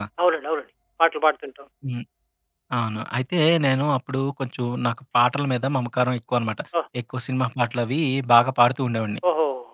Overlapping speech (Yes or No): No